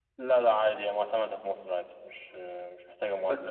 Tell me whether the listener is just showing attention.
No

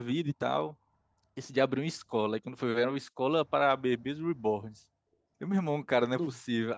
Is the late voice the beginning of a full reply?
No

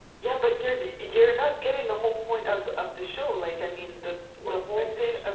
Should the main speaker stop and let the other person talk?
No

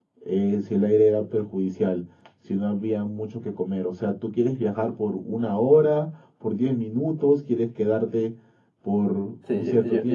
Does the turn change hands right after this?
Yes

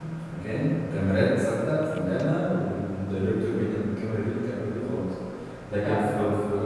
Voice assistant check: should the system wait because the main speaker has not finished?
Yes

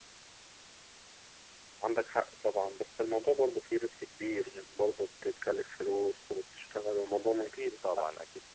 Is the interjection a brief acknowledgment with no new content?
No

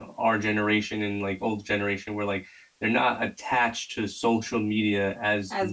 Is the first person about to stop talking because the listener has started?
No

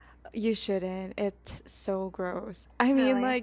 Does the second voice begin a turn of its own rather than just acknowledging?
No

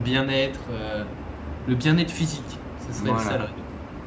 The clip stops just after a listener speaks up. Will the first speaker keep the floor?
No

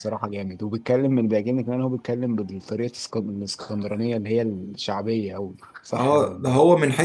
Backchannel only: No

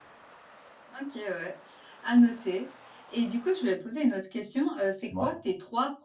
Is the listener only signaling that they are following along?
Yes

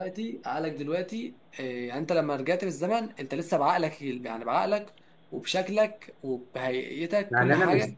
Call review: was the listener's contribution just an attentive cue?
No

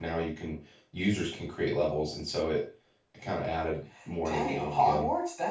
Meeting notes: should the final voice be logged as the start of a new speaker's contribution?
Yes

